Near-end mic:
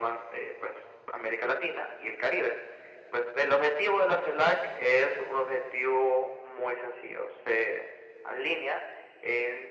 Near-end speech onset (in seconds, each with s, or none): none